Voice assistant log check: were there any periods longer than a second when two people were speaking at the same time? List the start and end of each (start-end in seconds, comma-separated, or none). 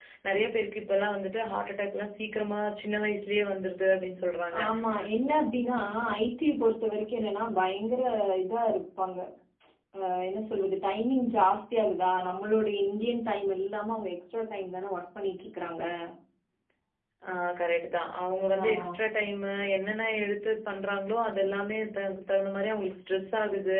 none